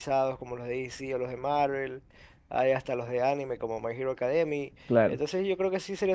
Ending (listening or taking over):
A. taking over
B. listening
B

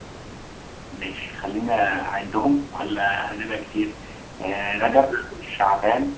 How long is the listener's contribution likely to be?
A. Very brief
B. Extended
A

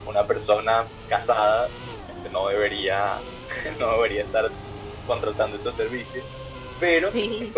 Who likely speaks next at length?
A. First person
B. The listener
A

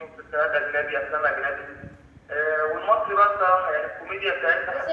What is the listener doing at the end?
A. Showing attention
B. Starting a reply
B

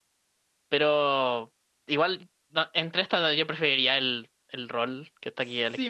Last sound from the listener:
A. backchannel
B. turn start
B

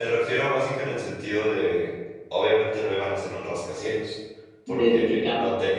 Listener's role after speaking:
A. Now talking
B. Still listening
B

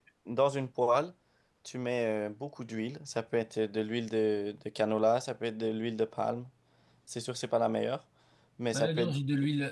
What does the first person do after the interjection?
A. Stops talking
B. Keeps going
A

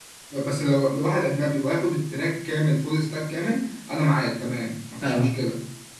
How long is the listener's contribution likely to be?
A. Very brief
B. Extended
A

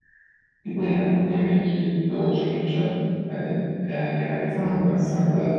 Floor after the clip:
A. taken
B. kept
B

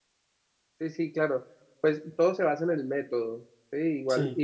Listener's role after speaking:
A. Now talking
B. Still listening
B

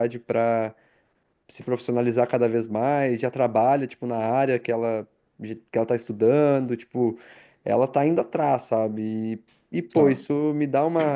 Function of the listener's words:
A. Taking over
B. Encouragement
B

